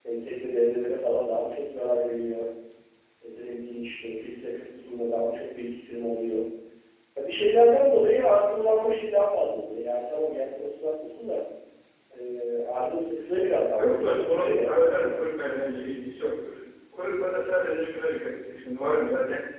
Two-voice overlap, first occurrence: 13.8 s

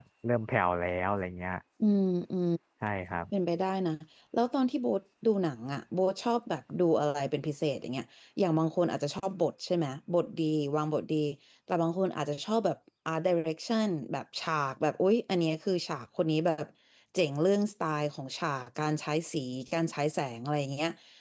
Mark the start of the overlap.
none

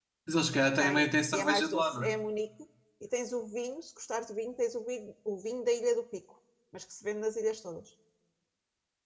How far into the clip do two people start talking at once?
0.8 s

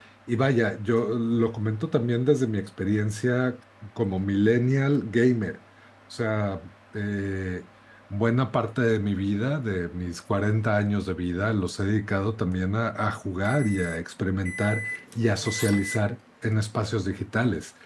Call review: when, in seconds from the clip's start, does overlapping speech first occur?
none

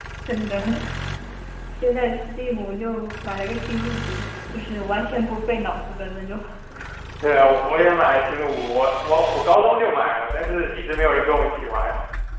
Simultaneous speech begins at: none

